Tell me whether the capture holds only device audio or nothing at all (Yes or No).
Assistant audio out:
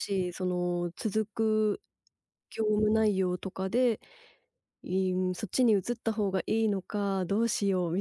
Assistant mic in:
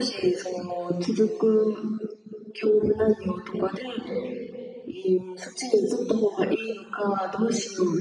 Yes